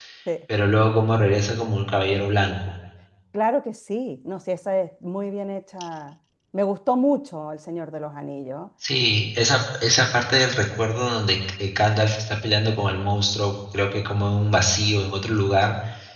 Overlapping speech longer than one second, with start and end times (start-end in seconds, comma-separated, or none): none